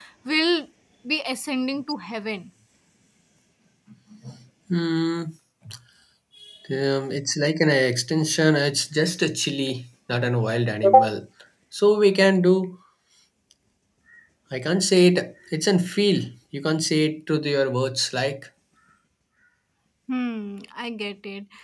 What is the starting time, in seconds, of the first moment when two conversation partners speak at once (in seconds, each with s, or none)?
none